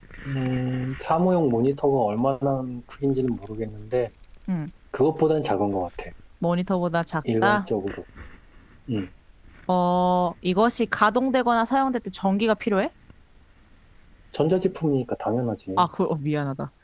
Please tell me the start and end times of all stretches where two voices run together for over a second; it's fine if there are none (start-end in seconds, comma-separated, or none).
none